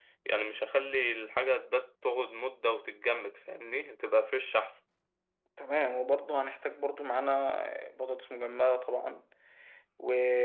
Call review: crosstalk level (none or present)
none